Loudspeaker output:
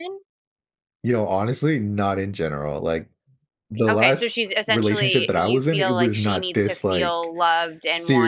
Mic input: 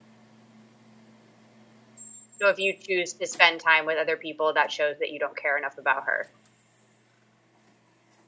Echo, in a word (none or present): none